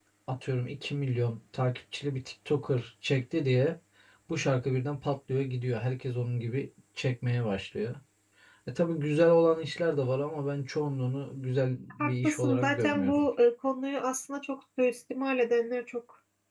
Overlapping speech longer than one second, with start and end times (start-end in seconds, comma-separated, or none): 12.0-13.2